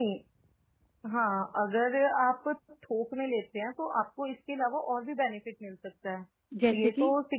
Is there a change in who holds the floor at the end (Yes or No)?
No